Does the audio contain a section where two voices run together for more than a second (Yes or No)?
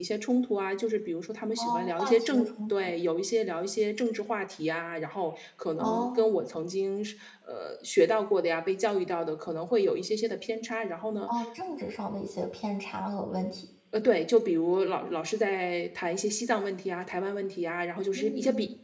Yes